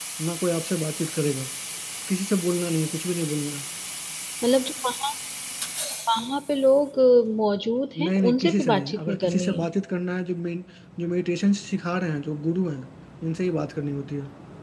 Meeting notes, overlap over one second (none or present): present